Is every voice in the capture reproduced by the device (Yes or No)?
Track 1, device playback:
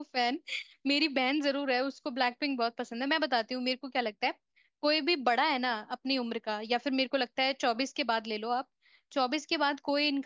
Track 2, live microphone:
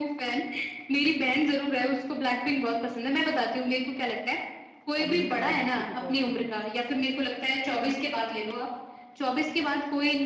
No